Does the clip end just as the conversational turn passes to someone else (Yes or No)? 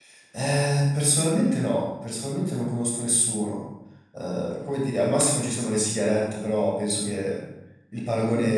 Yes